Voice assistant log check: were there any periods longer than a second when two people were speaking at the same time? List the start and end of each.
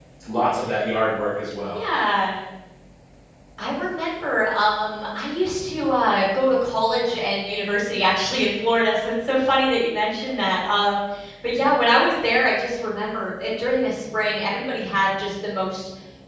none

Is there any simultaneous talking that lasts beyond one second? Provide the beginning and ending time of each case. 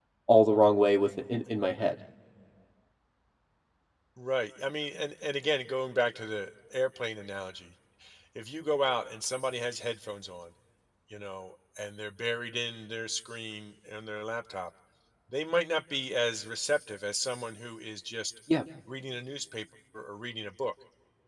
none

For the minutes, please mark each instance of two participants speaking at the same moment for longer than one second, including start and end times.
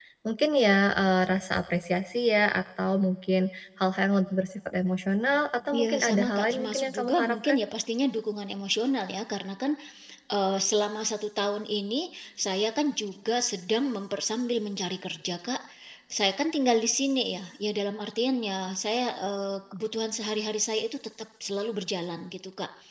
5.7-7.6

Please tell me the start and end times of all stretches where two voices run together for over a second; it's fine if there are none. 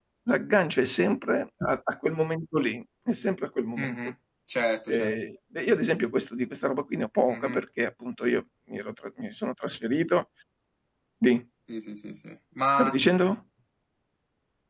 none

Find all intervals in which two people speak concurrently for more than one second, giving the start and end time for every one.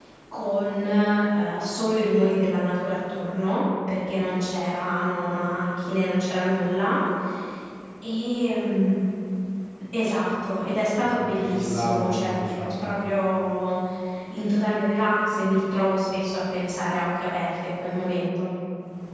11.2-12.4

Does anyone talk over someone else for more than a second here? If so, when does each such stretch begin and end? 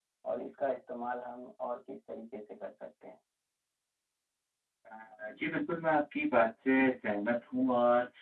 none

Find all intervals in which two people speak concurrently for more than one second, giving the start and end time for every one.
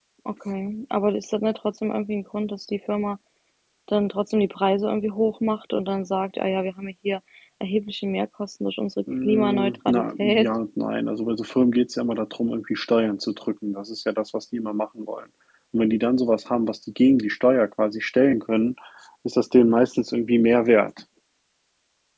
9.2-10.5

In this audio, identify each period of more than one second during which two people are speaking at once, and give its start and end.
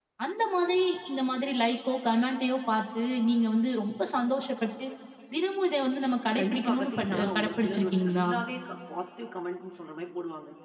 6.4-8.3

